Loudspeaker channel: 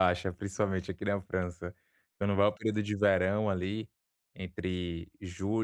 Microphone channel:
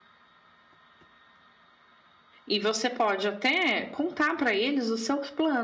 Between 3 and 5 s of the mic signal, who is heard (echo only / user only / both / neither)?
user only